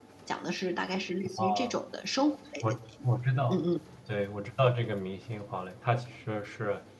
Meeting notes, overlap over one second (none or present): none